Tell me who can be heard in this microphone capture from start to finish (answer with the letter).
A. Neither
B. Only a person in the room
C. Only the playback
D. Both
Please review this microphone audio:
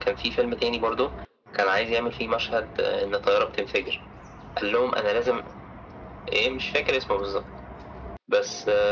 C